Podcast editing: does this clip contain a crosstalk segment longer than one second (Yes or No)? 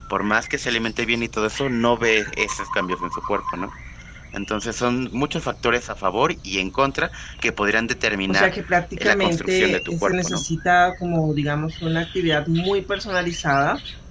Yes